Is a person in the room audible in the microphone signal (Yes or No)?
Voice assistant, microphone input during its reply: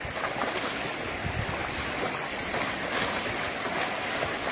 No